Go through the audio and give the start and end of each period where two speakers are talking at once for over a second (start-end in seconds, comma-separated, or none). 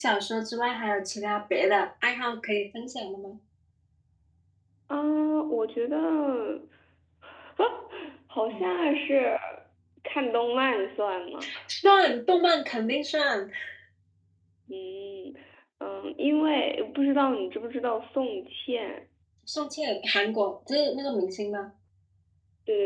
none